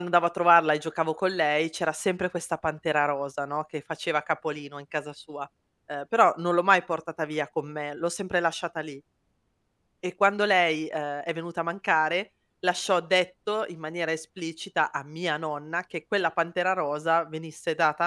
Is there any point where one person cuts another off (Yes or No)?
No